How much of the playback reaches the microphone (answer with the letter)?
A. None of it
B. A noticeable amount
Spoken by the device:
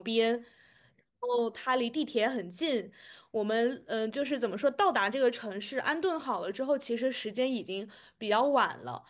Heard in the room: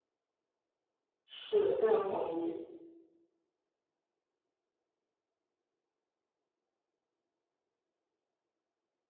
A